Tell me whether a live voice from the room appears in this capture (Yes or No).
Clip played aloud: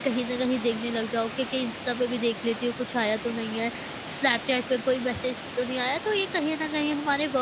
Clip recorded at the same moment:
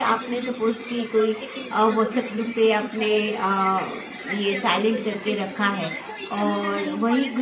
Yes